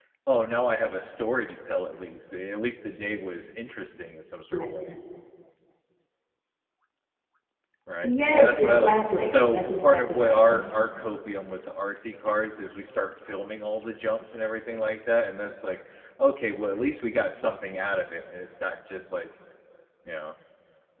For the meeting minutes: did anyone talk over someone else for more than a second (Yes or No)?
Yes